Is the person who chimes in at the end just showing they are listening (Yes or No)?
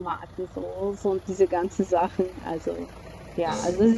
No